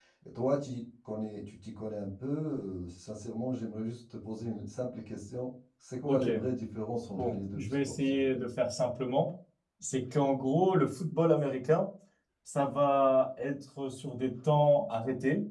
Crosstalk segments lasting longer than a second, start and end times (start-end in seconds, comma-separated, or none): 7.2-8.4